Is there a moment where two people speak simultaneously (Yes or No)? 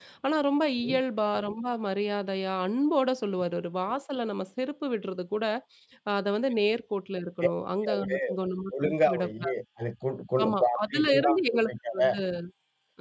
Yes